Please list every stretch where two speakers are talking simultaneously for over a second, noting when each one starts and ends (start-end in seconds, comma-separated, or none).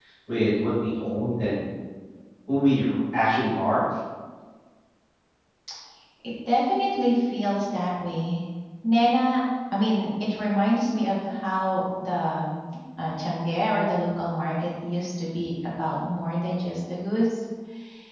none